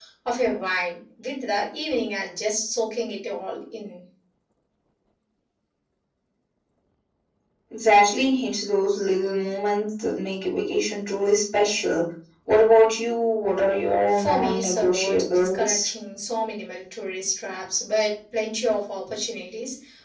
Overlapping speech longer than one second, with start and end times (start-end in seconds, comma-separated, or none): 14.1-15.9